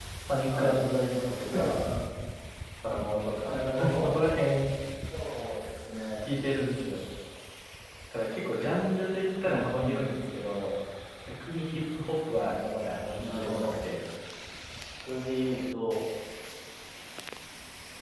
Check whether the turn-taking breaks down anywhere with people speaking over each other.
Yes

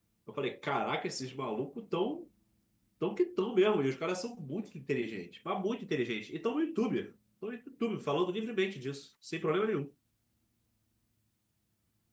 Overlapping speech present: No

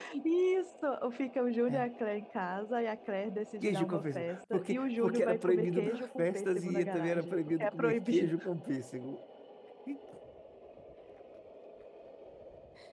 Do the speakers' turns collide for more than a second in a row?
Yes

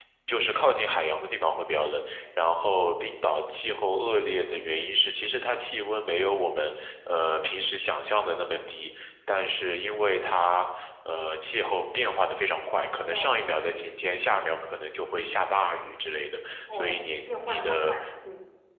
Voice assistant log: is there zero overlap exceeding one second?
No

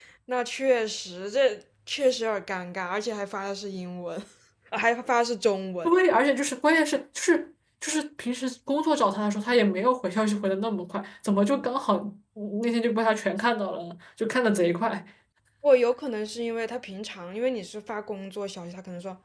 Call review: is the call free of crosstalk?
Yes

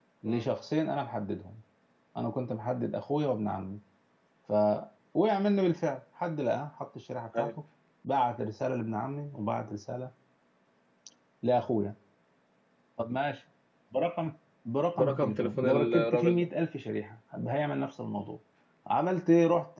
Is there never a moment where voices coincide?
No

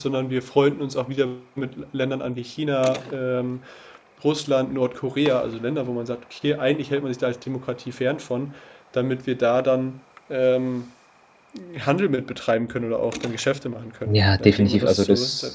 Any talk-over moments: Yes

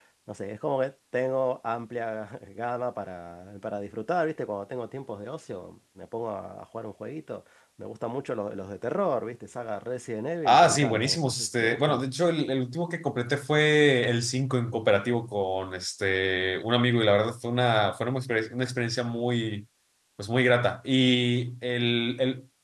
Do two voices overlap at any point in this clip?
Yes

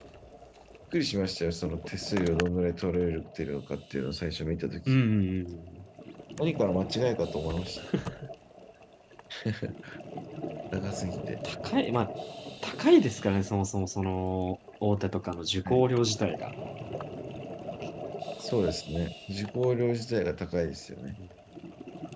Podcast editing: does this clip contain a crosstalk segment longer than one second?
No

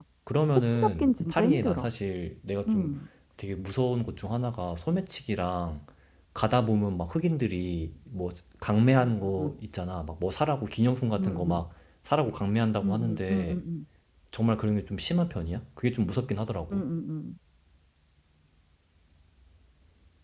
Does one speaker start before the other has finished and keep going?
Yes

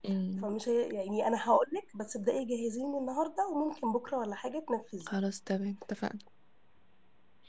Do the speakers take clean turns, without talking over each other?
Yes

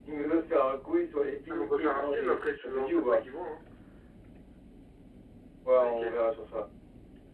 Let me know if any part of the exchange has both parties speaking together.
Yes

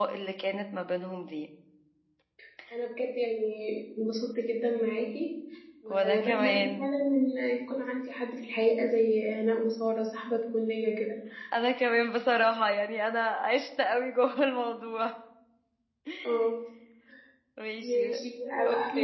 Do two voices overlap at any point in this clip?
Yes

